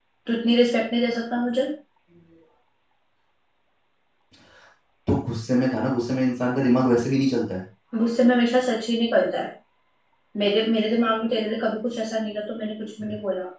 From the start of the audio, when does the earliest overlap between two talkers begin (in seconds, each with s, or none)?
none